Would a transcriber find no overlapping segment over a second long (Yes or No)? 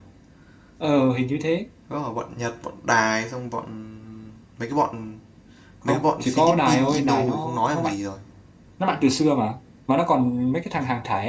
No